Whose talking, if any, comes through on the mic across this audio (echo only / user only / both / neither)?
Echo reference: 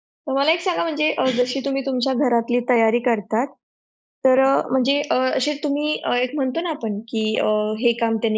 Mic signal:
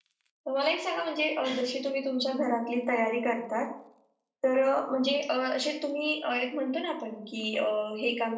echo only